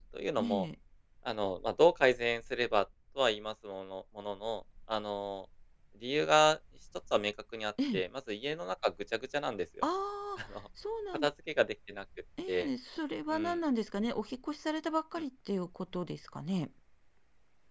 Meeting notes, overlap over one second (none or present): none